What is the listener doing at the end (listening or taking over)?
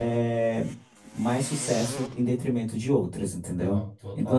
listening